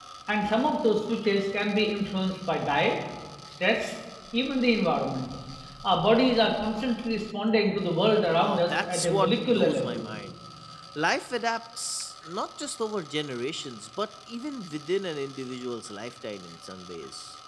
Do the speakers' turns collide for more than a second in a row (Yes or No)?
Yes